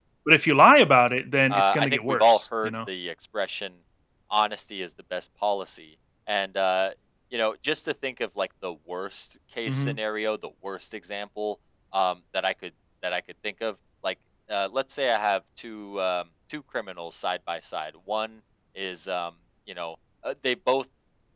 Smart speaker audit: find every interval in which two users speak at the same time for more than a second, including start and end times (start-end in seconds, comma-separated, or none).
1.5-2.7